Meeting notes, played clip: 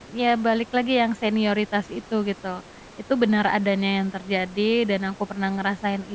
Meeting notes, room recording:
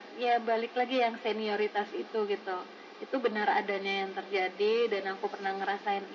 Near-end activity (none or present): none